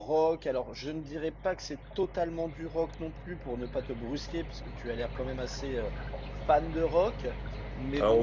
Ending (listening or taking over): taking over